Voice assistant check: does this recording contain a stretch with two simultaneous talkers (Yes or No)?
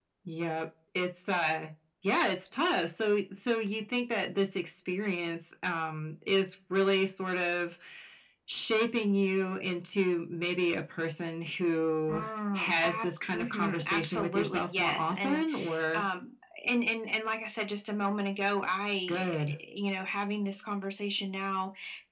Yes